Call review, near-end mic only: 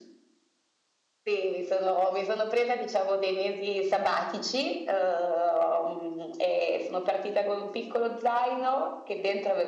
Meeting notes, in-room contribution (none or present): none